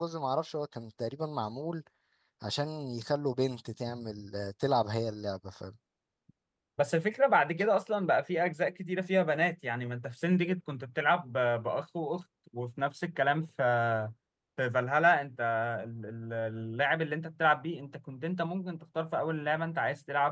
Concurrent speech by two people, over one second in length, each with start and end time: none

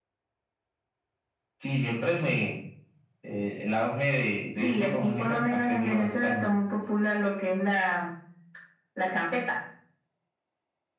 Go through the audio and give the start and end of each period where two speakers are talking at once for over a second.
4.5-6.6

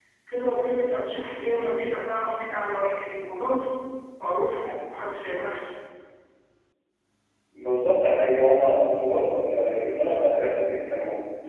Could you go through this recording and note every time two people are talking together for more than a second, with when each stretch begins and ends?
none

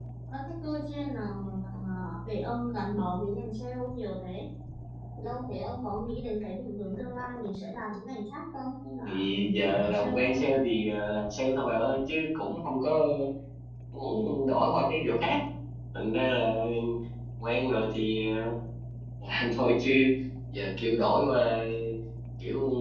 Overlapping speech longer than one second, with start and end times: 9.1-10.4

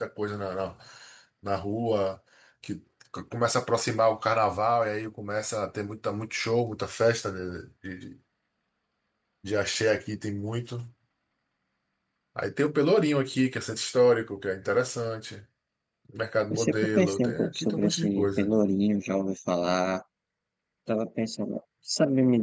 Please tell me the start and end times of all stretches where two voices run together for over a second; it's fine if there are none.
16.5-18.5

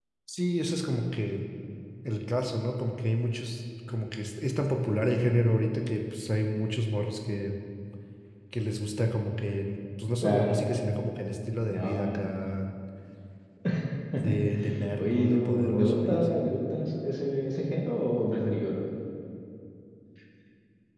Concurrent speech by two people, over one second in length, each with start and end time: 15.0-16.4

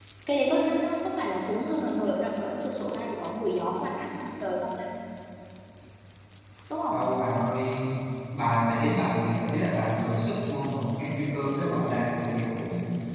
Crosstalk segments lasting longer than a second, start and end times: none

